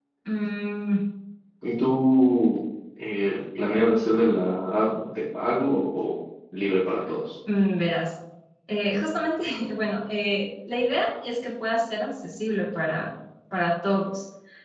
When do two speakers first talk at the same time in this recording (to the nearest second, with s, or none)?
none